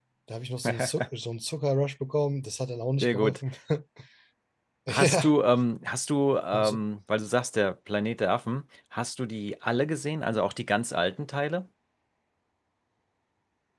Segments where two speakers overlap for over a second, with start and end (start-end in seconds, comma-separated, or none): none